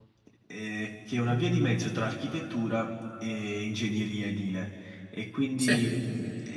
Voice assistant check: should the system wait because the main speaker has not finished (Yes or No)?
Yes